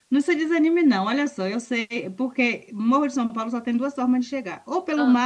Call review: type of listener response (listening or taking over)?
listening